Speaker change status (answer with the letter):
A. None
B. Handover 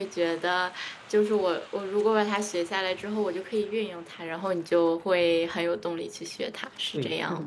B